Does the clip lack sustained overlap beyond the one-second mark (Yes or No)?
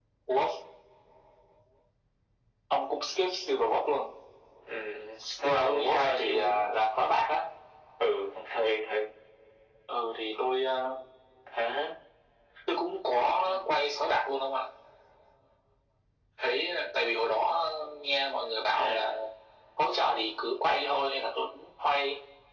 No